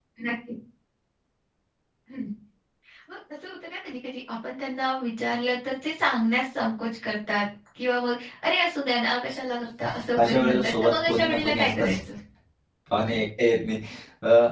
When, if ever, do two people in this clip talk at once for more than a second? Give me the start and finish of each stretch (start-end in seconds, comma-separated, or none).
10.2-12.0